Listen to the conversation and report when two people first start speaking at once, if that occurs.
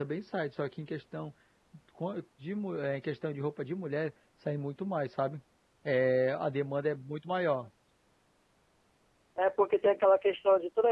none

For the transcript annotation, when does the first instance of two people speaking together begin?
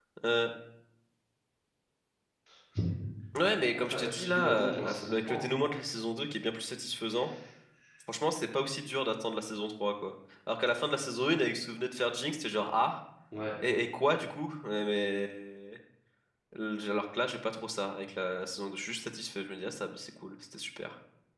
3.8 s

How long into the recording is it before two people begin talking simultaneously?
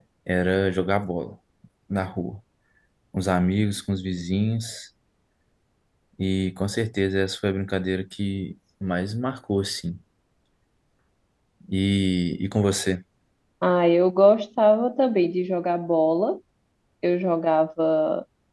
none

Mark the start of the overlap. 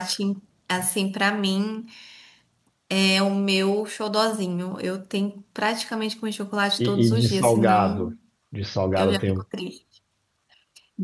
6.8 s

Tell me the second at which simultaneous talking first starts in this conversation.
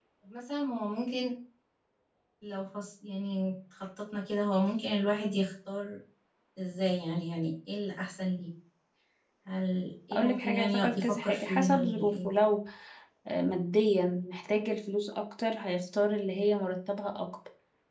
10.1 s

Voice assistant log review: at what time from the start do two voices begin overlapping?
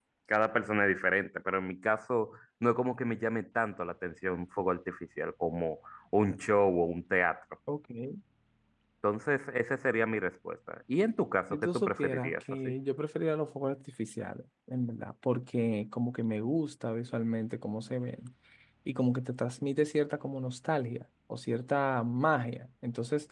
11.5 s

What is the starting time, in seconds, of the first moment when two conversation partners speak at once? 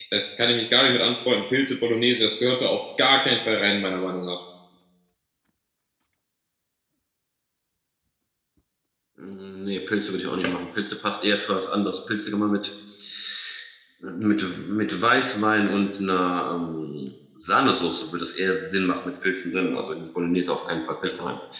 none

